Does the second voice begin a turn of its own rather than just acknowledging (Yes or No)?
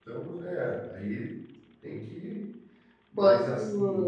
No